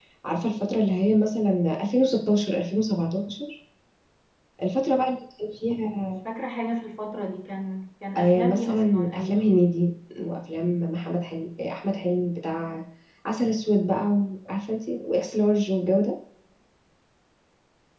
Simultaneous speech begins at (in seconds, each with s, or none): 8.2 s